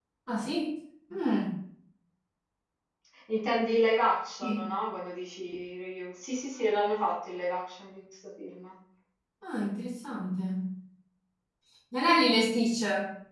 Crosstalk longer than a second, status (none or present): none